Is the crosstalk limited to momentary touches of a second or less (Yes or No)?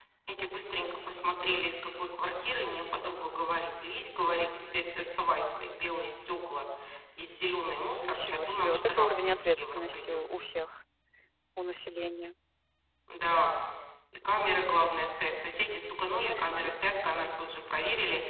No